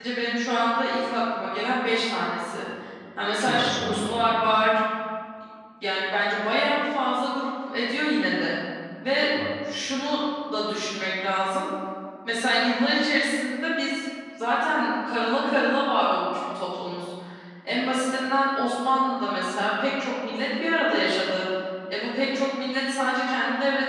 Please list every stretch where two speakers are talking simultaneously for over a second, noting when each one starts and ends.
3.4-4.6

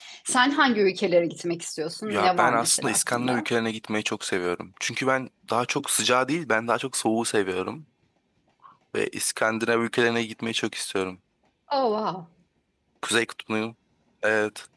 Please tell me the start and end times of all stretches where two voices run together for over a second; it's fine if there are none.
2.1-3.5

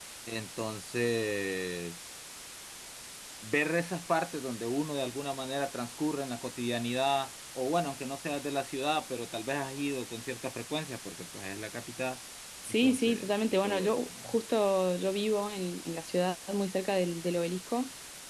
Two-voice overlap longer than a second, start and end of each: 12.8-14.4

